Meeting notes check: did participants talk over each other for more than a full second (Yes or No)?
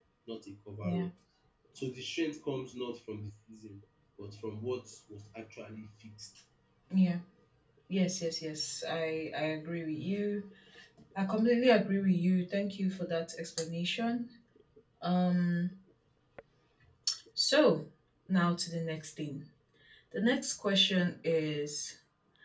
No